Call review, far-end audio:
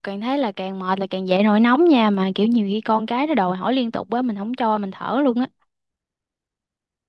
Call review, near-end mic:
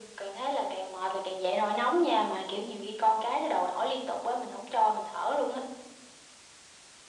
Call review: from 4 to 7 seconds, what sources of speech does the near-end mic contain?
echo only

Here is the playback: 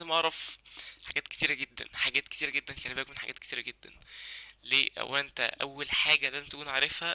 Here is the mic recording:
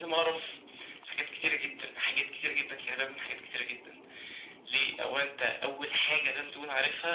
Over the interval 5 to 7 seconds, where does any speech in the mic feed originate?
echo only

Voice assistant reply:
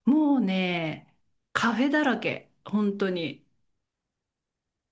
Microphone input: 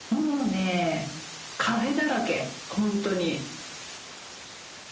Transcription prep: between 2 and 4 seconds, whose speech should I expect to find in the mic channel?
echo only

